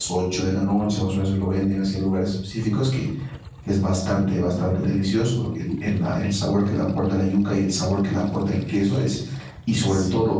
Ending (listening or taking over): listening